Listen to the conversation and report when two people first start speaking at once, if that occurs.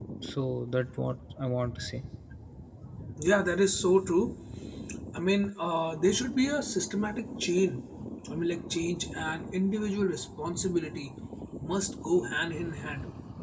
none

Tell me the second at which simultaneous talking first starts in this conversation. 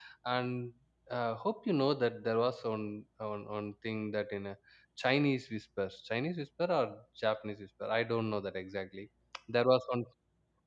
none

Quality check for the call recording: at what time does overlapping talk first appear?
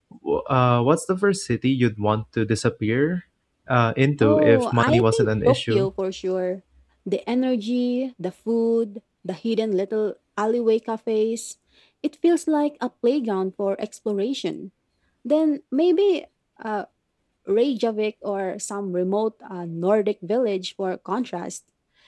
4.2 s

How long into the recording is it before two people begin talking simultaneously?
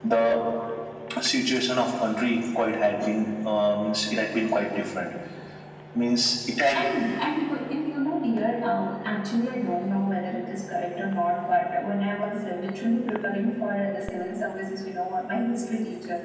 none

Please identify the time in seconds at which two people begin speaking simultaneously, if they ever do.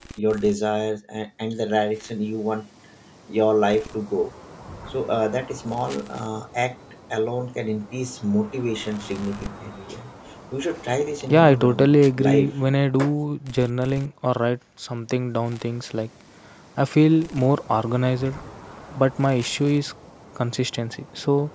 11.2 s

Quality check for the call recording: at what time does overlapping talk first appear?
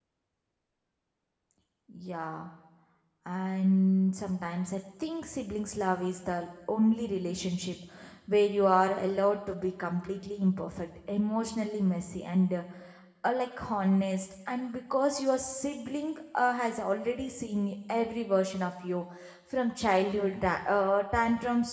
none

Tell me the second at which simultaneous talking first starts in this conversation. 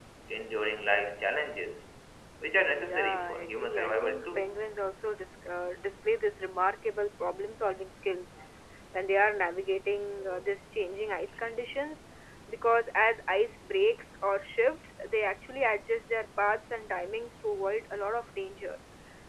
2.7 s

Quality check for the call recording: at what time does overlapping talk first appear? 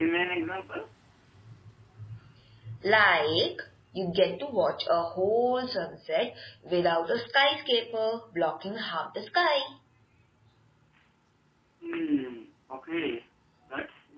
none

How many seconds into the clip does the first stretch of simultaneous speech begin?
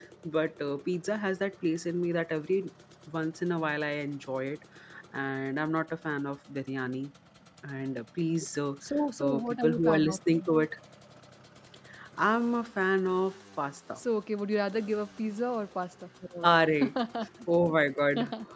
9.2 s

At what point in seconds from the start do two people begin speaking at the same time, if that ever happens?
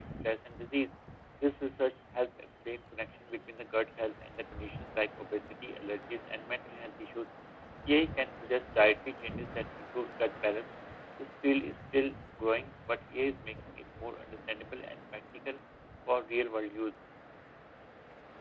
none

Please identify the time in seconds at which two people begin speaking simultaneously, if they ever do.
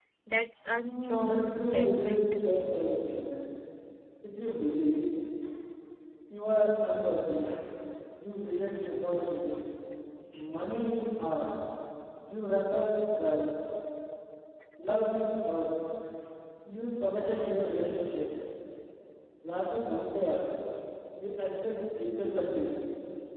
0.8 s

